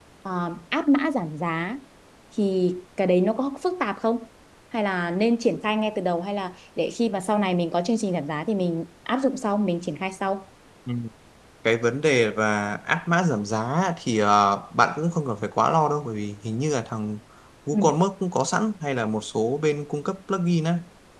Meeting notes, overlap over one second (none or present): none